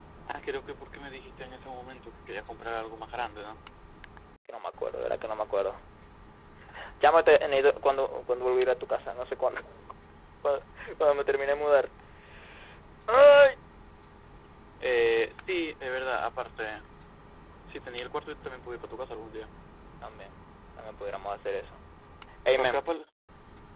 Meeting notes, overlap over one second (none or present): none